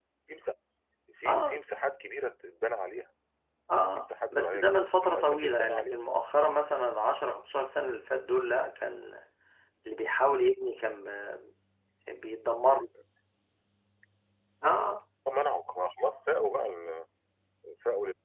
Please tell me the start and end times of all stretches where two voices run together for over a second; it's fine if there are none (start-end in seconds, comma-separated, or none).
4.0-6.0